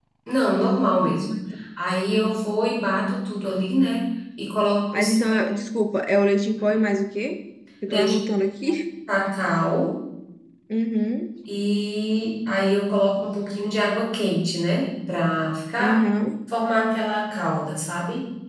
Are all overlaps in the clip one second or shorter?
Yes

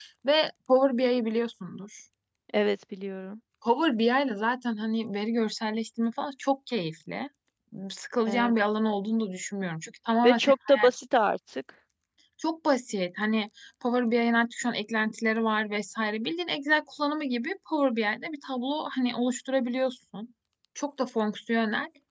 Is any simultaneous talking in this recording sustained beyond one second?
No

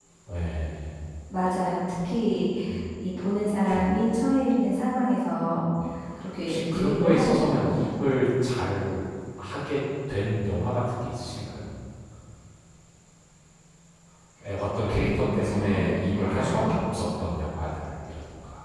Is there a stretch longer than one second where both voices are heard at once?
Yes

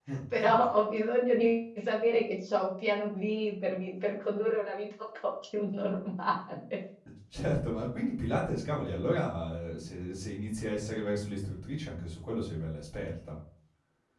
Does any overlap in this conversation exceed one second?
No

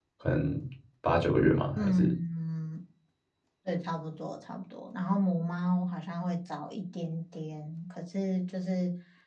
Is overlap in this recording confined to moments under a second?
Yes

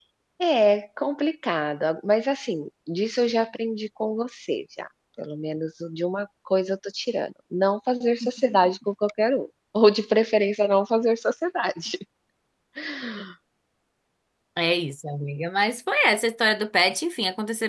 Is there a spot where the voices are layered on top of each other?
No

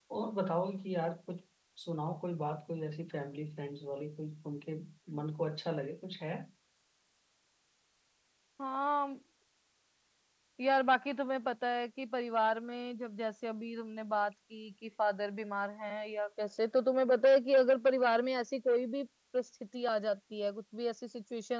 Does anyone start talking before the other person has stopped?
No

